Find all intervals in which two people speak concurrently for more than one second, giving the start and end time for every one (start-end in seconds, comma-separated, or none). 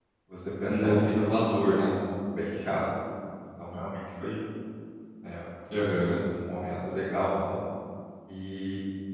0.7-1.9